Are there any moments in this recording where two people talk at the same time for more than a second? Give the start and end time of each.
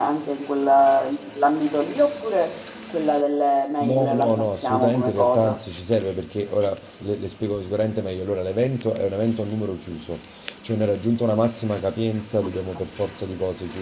3.8-5.6

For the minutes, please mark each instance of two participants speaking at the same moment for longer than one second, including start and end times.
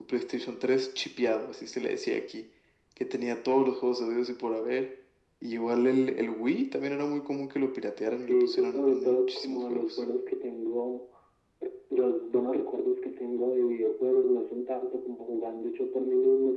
8.1-10.0

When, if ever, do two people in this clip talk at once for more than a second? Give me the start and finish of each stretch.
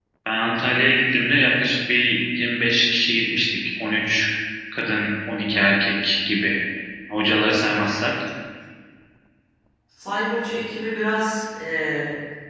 none

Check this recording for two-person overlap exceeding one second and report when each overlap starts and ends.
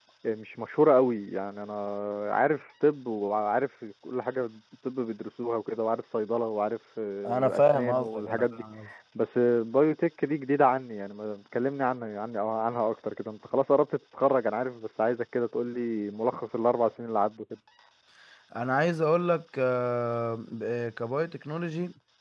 7.3-8.6

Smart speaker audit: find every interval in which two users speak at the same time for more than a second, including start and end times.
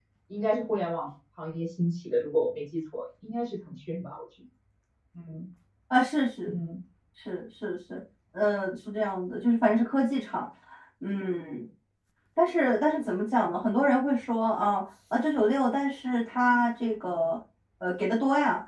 none

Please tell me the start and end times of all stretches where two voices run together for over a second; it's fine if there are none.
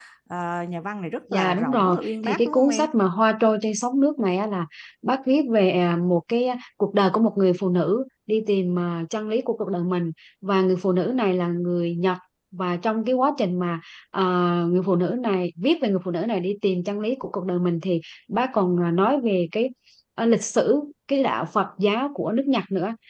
1.3-2.9

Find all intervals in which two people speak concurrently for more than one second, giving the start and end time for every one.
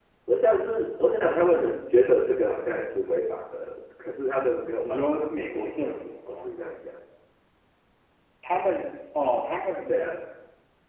4.8-6.5

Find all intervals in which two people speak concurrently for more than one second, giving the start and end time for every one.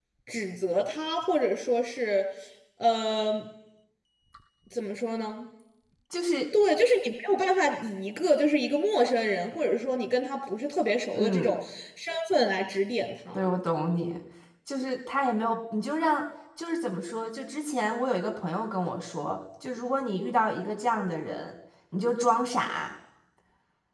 none

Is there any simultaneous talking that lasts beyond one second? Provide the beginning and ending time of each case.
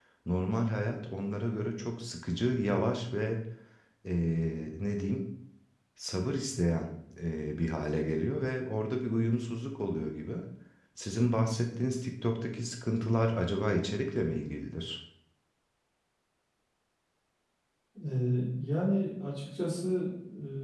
none

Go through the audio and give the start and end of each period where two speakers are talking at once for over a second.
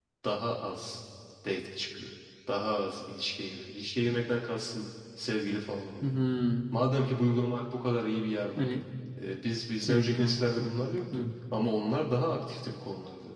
9.8-11.3

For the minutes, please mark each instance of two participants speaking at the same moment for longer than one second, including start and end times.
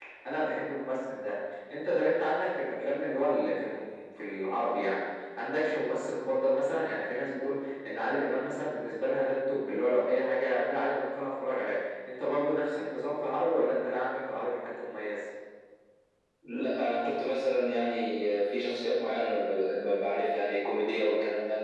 none

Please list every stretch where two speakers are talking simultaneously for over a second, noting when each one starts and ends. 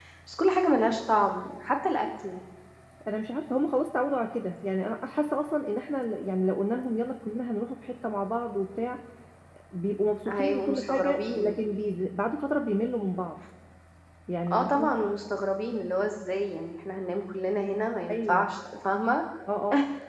10.3-11.6

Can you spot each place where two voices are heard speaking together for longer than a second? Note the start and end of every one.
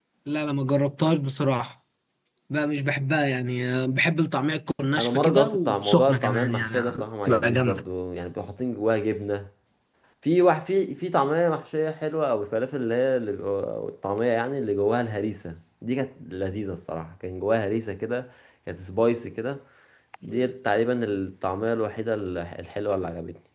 5.0-7.8

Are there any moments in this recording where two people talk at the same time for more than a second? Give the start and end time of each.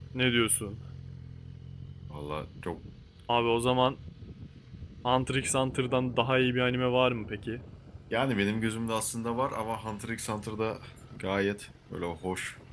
none

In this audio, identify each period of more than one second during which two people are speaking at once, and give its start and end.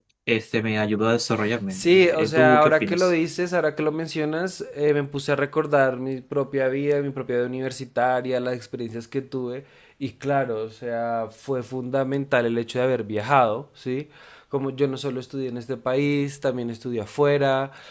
1.7-3.1

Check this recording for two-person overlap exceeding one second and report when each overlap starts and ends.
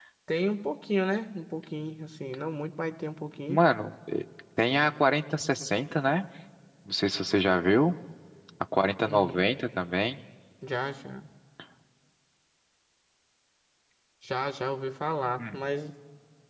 none

